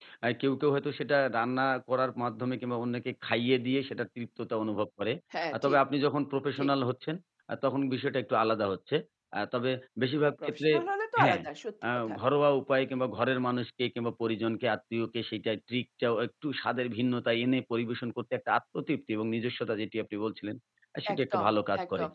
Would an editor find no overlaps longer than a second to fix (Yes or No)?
Yes